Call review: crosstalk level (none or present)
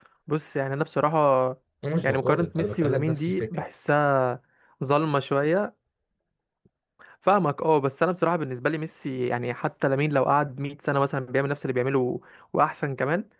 present